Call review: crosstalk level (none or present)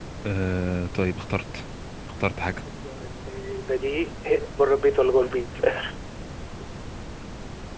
none